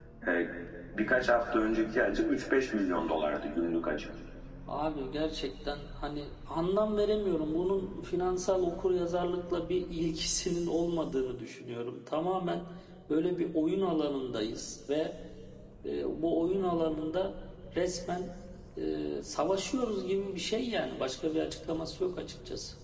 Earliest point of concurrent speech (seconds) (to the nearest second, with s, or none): none